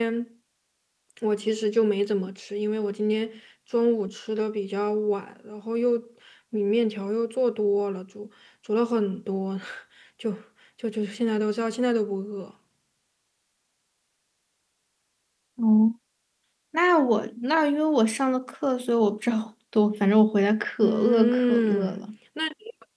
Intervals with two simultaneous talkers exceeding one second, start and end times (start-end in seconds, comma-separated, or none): 20.8-22.0